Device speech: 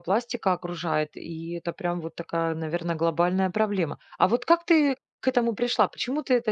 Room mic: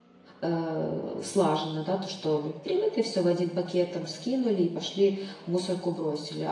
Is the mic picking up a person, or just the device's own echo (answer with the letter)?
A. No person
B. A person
B